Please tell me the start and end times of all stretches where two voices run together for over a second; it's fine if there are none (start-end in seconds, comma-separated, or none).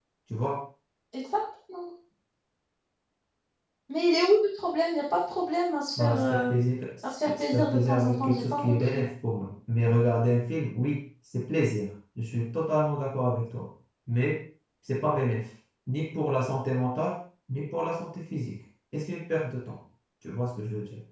7.3-9.0